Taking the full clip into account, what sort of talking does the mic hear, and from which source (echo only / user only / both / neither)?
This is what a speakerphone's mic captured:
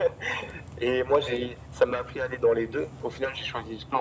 echo only